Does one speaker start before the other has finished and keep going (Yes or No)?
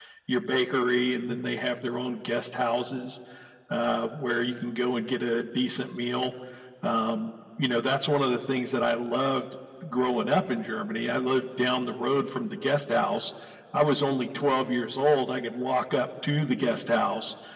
No